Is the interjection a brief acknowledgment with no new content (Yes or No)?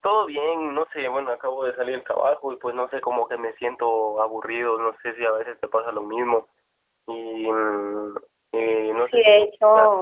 No